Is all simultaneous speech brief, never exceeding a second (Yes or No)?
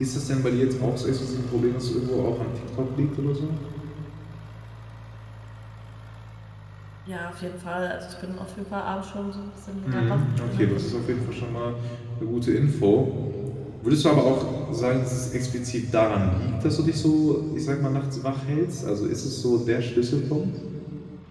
No